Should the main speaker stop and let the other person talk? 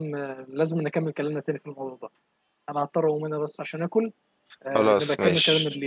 Yes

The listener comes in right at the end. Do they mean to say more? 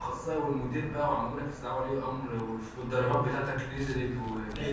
Yes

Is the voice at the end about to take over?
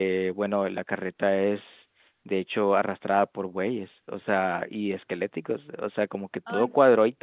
No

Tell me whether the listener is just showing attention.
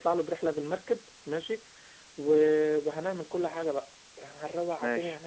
Yes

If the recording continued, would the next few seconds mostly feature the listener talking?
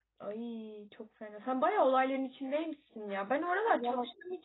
No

